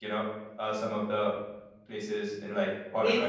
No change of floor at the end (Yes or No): No